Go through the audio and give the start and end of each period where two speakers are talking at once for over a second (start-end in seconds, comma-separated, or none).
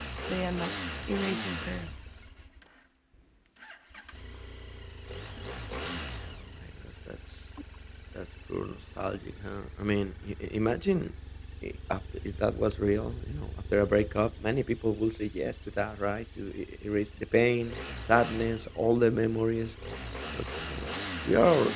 none